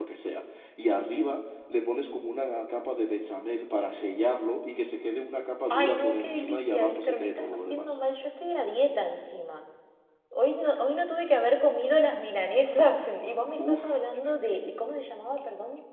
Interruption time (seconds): 5.7 s

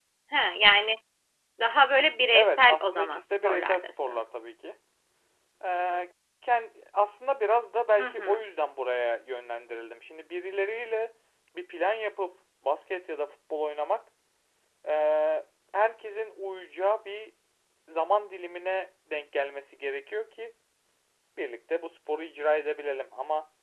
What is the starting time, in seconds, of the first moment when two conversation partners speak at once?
2.3 s

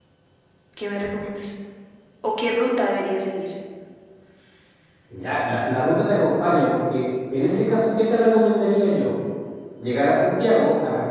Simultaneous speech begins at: none

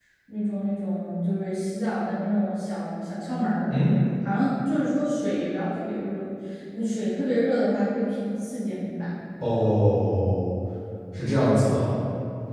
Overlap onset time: none

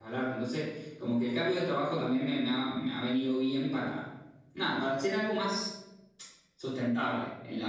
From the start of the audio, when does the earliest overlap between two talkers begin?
none

